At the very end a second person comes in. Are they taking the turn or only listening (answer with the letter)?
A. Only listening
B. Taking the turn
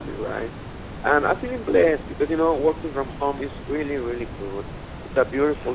A